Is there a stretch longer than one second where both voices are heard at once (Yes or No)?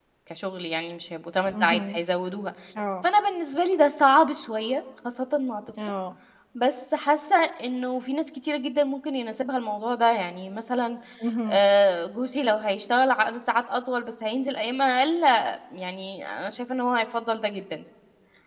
No